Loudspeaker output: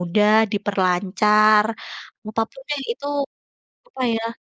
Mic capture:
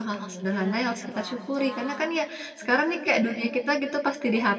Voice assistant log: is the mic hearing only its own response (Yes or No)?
No